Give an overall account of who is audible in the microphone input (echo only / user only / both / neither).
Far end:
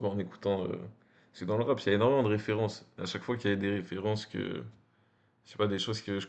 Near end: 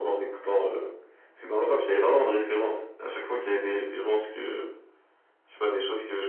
echo only